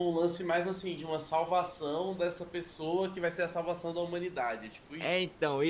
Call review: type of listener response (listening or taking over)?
taking over